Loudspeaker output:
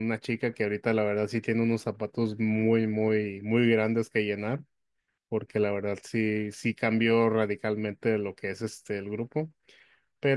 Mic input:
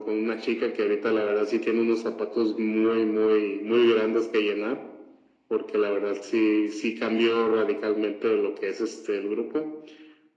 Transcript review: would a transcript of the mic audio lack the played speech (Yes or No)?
No